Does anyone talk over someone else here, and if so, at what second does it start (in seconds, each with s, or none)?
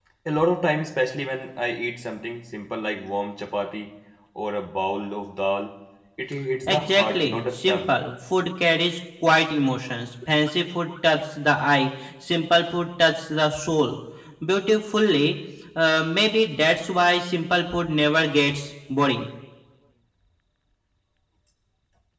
6.7 s